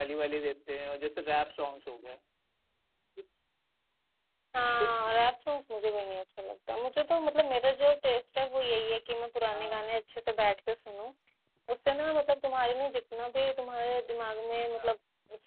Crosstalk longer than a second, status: none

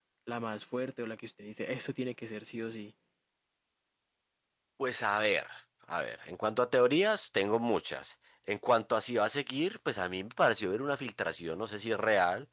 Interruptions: none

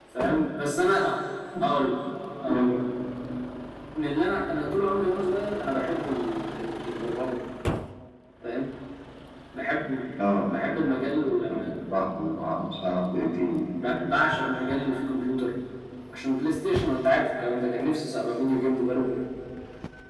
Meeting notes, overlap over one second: none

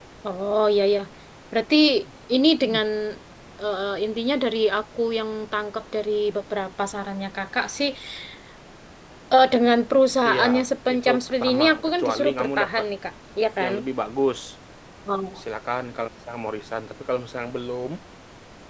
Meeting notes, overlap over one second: present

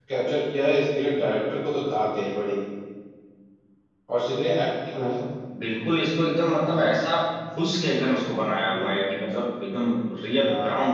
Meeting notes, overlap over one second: none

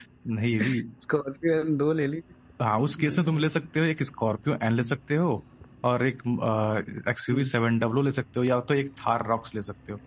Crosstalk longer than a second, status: none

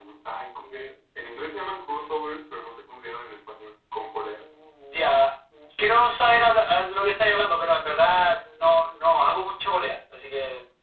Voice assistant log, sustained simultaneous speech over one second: none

